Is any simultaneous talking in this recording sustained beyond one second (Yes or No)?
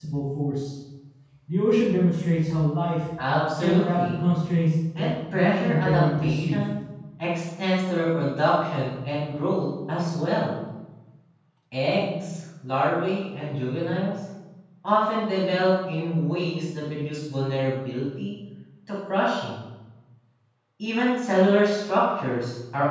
Yes